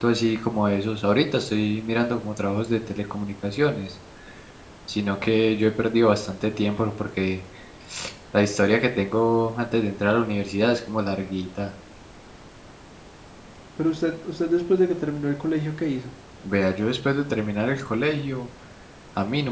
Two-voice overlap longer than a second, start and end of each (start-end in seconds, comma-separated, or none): none